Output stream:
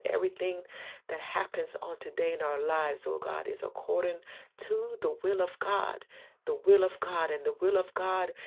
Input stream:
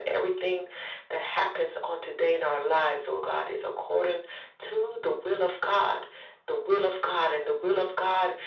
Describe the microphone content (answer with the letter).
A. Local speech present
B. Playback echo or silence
B